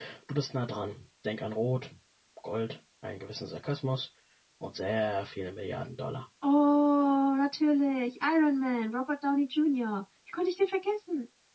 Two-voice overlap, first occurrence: none

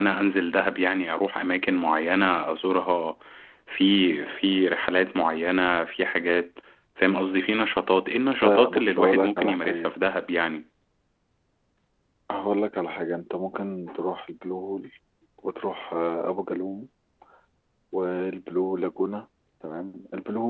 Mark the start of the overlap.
8 s

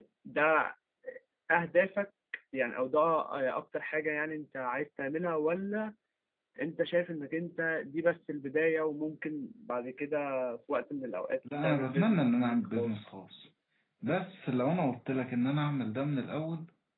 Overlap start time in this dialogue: 11 s

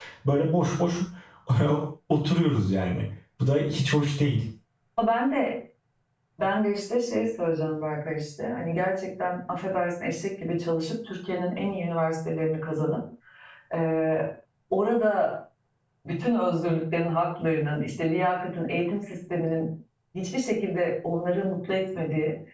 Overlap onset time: none

